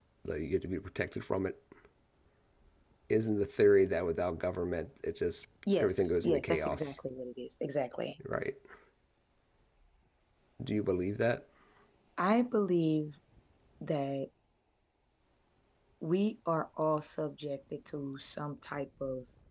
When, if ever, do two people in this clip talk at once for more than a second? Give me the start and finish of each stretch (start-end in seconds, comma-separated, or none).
5.8-7.0